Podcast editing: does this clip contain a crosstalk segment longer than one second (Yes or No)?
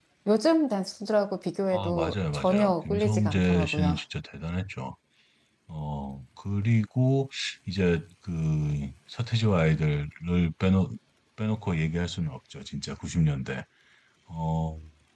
Yes